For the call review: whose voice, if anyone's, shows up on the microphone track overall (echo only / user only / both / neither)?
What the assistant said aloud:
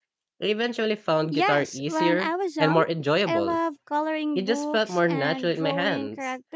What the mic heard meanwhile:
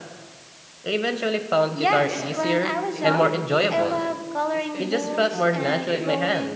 both